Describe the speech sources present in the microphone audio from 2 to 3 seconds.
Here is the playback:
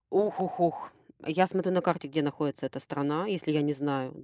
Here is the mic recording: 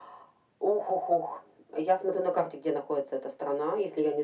echo only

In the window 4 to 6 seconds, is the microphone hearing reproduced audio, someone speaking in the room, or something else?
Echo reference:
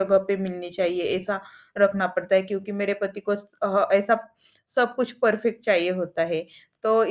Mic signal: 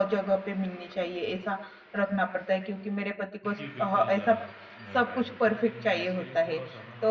both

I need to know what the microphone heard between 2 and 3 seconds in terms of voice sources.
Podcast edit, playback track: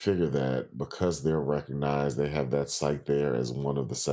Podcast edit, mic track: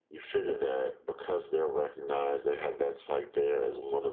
echo only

